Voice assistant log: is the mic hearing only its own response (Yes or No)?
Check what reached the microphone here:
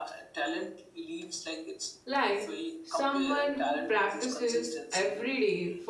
No